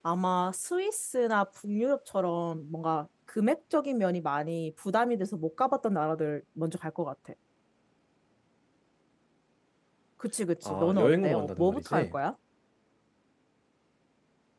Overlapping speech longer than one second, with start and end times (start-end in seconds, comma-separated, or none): 10.7-12.2